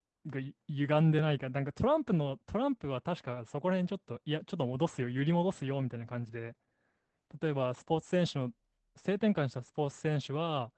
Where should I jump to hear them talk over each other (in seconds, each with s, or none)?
none